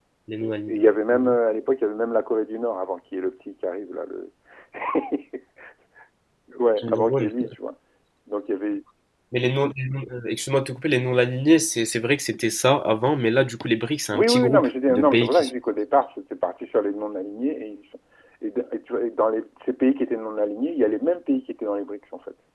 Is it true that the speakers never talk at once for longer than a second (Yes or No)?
No